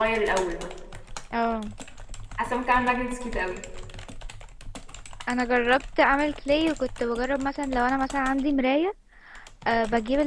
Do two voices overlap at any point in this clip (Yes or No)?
No